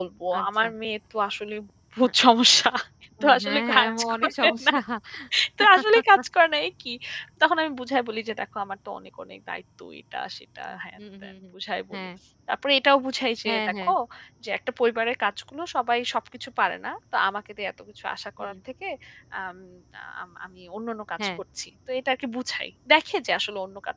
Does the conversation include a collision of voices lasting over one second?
Yes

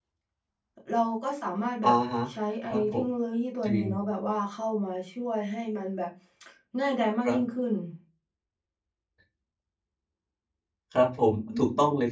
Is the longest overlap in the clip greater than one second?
No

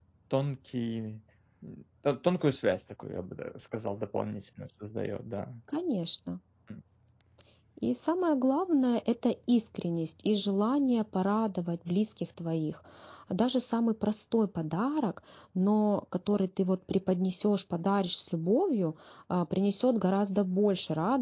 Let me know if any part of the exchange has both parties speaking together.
No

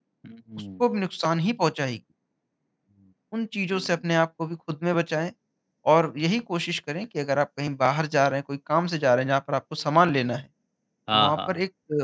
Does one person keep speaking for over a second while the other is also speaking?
No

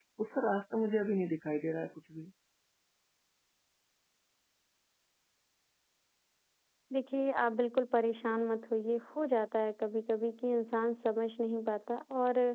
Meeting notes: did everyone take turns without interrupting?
Yes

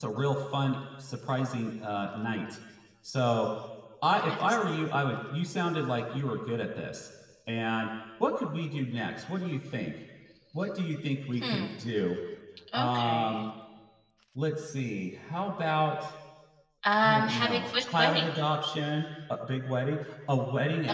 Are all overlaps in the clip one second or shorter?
No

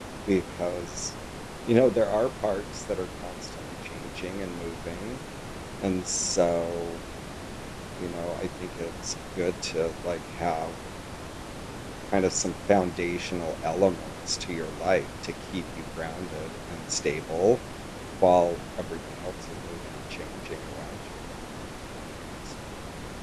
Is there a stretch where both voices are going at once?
No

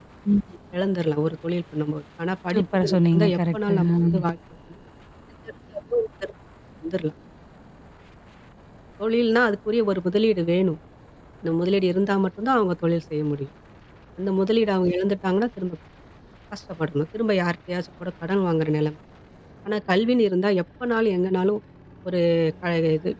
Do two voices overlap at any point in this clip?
Yes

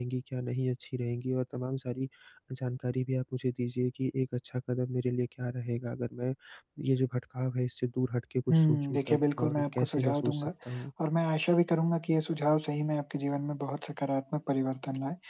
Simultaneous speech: Yes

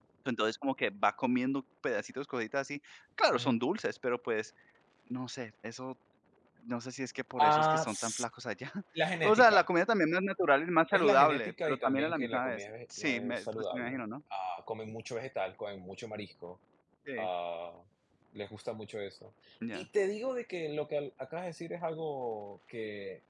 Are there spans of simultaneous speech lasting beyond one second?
Yes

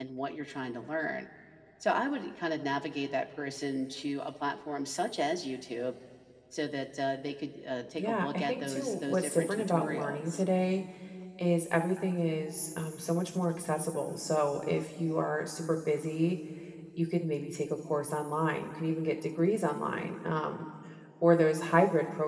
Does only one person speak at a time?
No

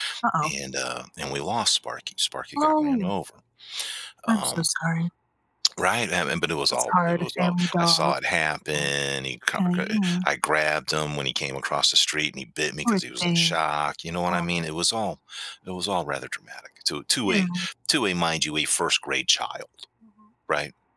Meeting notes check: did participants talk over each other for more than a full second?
Yes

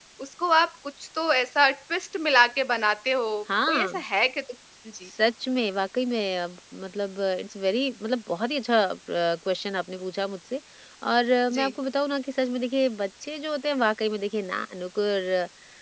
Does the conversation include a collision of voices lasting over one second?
No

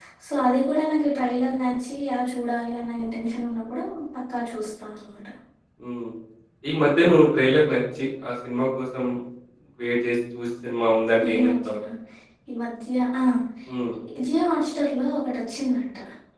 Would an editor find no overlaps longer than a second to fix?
Yes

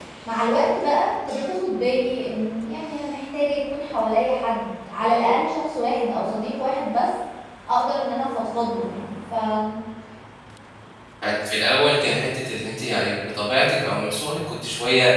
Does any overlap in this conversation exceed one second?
No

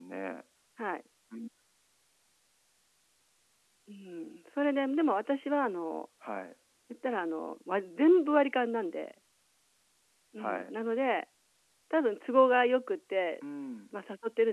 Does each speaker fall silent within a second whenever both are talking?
Yes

